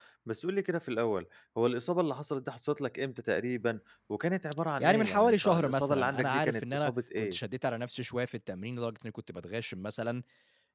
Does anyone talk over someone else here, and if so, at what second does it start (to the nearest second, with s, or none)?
5 s